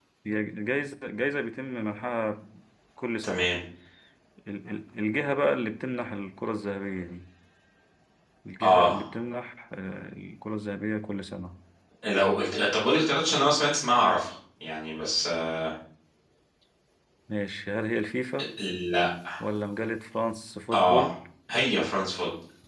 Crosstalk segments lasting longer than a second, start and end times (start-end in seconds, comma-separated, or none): none